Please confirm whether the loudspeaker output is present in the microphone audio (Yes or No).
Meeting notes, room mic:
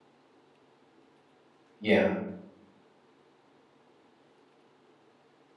No